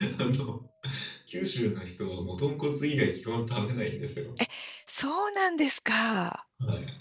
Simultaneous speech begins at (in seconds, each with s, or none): none